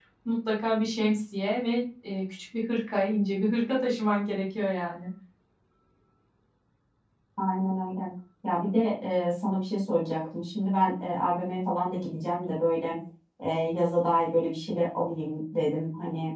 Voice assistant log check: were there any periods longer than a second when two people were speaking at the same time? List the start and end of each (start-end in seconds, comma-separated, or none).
none